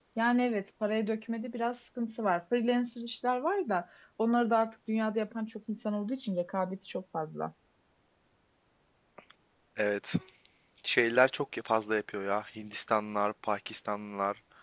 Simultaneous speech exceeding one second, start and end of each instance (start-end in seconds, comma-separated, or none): none